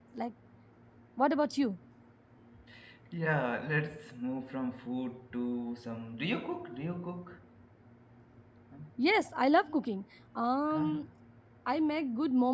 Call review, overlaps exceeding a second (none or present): none